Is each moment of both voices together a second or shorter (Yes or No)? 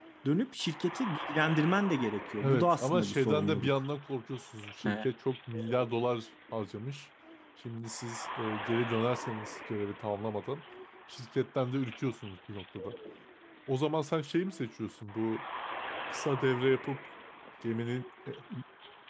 No